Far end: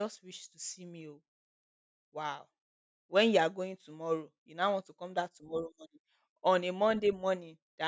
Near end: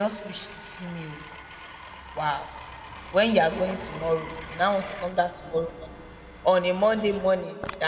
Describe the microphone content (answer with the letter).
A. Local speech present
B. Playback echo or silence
B